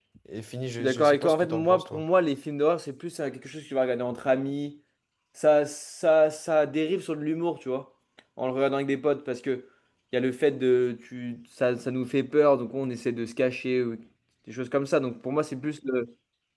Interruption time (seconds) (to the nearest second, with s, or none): 1 s